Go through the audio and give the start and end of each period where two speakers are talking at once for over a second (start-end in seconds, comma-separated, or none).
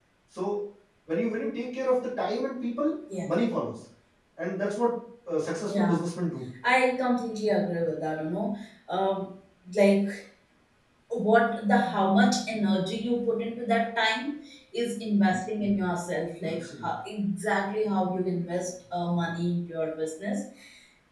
none